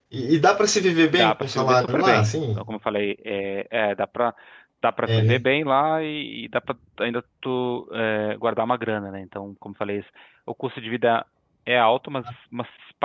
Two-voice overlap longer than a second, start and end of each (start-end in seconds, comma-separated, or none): 1.1-2.6